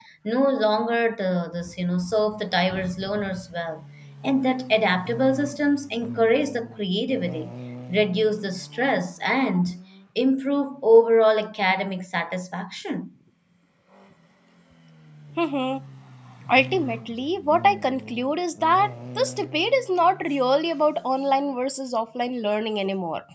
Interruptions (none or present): none